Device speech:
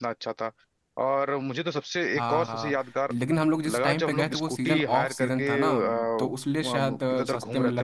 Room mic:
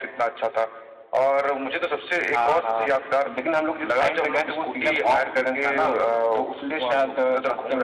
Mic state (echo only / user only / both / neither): echo only